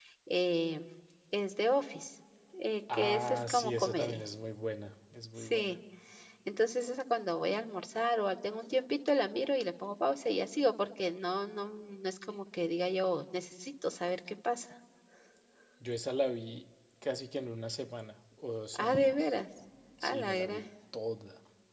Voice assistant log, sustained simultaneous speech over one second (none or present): present